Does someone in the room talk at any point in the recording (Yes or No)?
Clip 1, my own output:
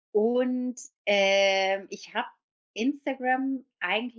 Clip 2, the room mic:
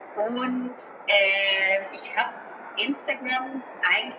No